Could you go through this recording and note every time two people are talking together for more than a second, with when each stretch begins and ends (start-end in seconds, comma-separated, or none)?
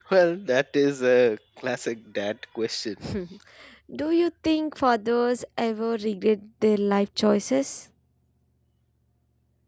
none